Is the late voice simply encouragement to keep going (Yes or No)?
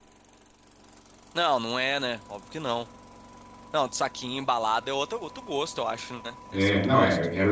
No